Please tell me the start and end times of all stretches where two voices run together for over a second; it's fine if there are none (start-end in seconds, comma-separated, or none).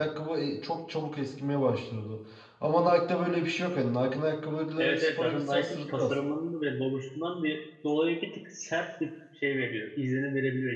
4.8-6.1